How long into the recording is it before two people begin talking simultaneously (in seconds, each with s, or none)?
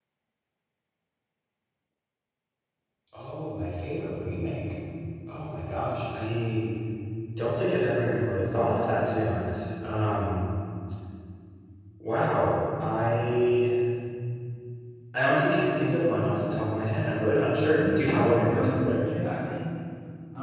17.6 s